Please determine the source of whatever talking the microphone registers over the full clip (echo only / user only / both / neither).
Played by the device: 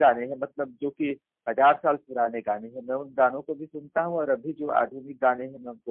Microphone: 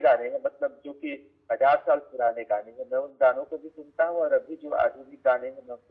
echo only